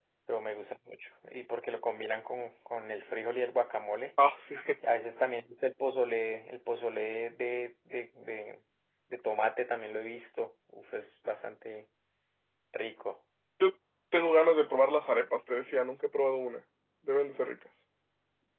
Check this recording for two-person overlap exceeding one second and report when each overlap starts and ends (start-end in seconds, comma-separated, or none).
none